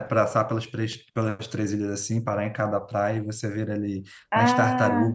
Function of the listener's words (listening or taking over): listening